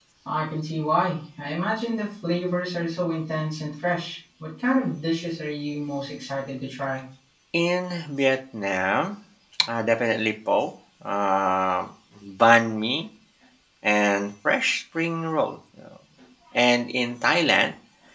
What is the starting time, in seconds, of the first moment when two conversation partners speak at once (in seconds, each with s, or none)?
none